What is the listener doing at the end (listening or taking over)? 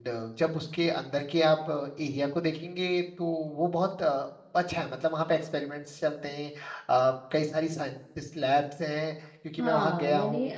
taking over